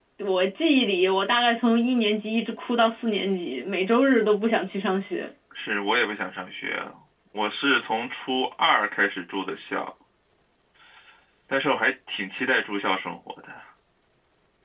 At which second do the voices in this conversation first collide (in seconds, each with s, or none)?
none